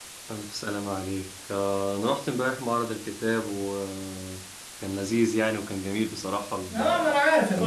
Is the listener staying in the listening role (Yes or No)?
No